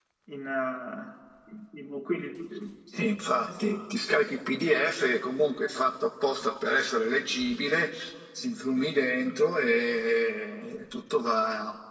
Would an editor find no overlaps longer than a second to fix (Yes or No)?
Yes